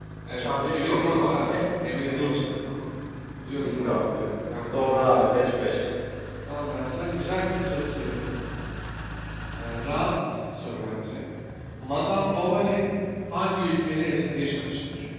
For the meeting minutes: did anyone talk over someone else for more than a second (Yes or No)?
Yes